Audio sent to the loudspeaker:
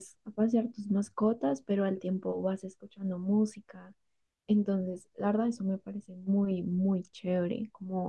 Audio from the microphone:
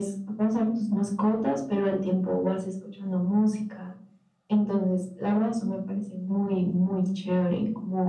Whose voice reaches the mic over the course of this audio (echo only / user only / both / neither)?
echo only